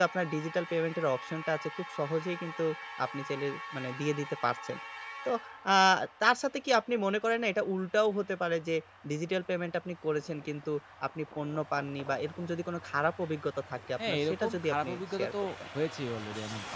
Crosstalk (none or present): present